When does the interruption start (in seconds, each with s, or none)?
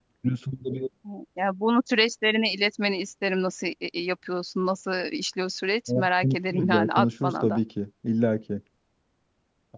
5.9 s